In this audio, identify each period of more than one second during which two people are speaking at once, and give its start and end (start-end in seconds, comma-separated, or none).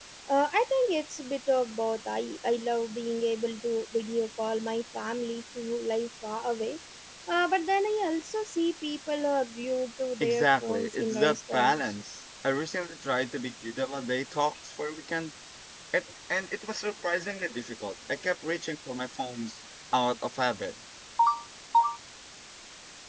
10.2-11.9